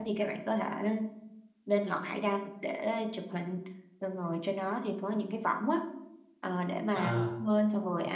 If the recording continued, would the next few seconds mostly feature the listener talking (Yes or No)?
No